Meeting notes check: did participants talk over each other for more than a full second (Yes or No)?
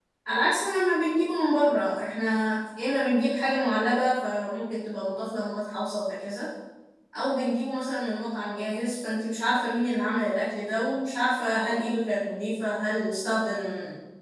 No